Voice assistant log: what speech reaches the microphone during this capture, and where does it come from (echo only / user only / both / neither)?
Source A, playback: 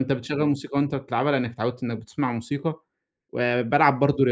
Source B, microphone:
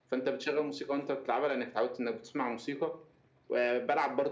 echo only